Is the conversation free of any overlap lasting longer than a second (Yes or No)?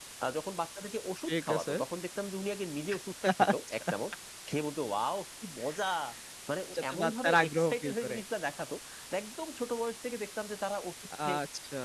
No